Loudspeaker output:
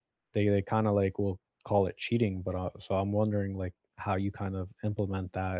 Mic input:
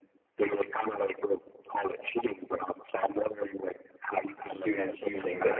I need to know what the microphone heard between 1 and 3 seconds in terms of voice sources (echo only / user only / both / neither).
echo only